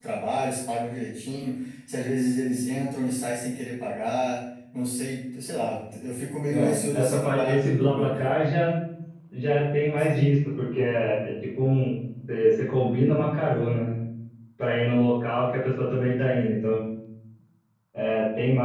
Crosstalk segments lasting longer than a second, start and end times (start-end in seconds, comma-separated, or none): 6.5-8.3